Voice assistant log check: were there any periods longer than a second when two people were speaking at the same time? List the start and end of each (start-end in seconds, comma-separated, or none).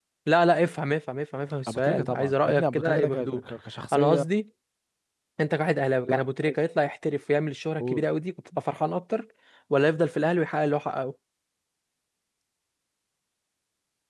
1.7-3.4